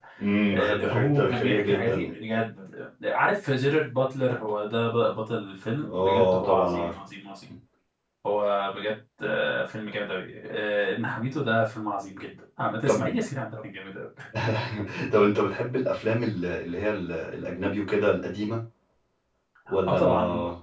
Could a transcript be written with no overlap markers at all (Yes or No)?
No